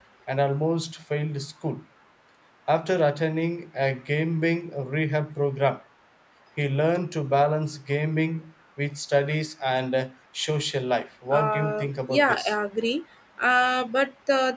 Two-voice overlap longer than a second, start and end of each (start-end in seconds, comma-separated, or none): 11.3-12.5